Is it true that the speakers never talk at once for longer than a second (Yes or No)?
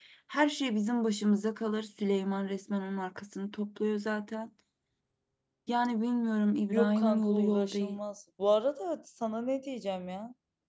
No